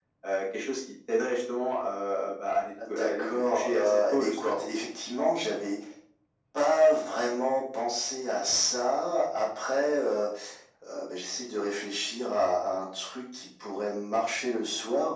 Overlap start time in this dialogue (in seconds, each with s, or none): 2.8 s